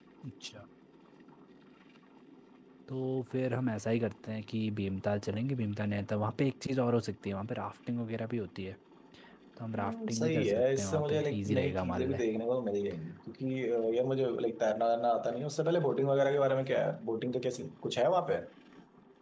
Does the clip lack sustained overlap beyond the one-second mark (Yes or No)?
No